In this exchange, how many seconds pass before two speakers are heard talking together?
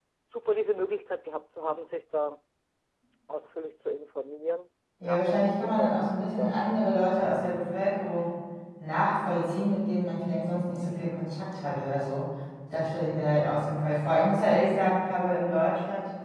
5 s

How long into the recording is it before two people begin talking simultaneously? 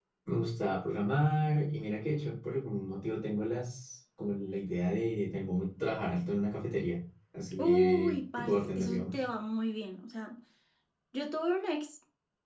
8 s

